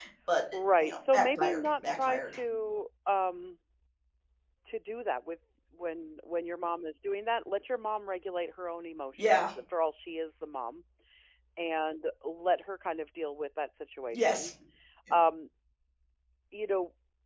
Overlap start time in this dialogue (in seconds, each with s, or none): 0.8 s